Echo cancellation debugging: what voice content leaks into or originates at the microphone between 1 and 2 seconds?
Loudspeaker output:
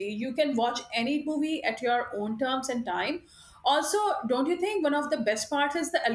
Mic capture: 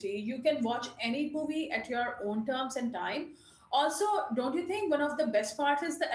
echo only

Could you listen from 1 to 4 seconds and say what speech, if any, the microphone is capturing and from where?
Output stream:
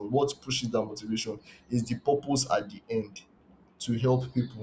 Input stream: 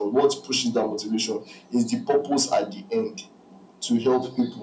echo only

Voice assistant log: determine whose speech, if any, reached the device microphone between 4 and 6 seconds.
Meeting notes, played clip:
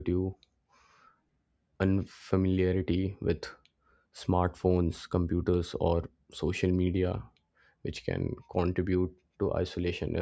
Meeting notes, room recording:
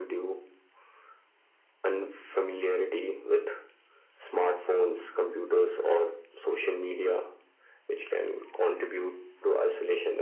echo only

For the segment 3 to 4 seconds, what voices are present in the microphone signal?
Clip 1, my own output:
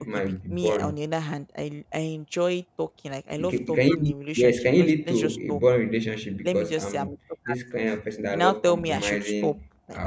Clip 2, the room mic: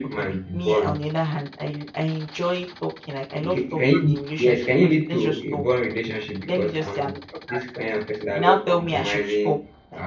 echo only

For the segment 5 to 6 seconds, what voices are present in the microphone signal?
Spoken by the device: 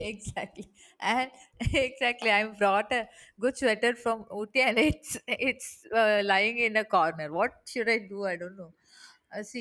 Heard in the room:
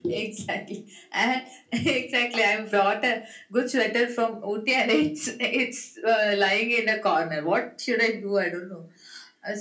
echo only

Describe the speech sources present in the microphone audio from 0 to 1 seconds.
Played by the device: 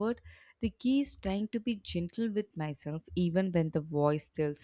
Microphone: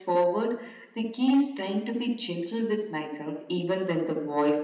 echo only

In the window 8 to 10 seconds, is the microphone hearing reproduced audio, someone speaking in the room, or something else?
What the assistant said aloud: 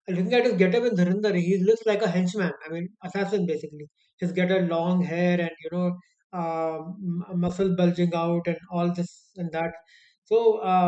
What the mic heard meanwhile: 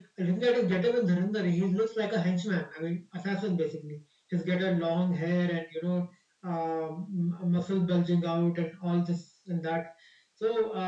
echo only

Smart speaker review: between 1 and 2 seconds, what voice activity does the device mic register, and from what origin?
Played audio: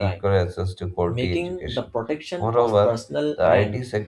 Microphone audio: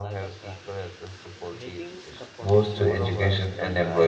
echo only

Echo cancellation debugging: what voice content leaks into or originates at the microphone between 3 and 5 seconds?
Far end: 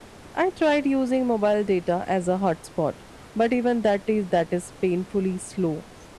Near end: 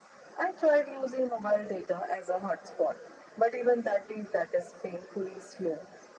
echo only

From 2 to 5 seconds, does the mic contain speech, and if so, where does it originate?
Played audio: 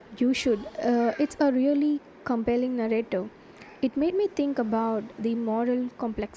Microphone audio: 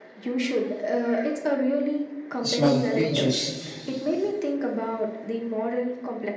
both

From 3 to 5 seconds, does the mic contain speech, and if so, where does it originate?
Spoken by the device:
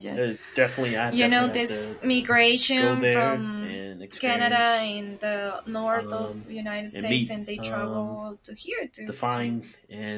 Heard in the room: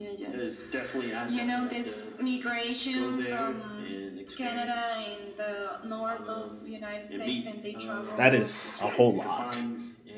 echo only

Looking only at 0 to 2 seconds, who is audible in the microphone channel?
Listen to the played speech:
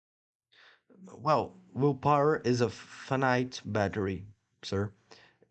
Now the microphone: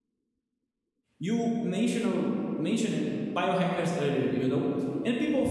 user only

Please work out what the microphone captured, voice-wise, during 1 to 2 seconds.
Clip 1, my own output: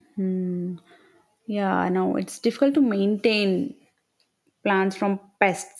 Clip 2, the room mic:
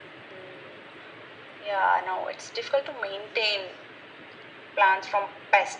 echo only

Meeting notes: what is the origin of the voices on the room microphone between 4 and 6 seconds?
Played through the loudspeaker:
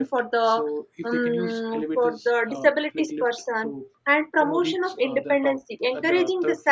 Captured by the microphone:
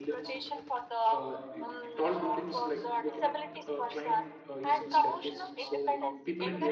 both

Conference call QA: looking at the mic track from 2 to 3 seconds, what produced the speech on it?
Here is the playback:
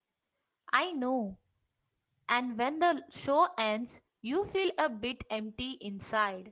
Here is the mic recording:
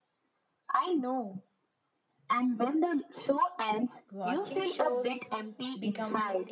echo only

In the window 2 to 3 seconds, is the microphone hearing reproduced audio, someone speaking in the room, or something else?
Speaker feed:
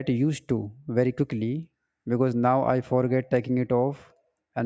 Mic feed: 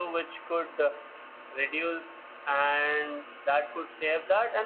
user only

